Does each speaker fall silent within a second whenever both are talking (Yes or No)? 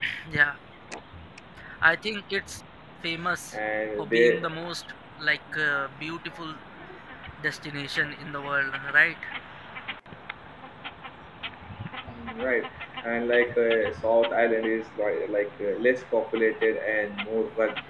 Yes